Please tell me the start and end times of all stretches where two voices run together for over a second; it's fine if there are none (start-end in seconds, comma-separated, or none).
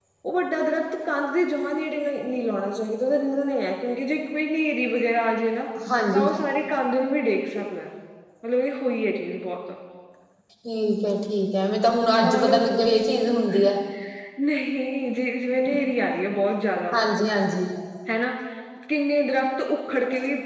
none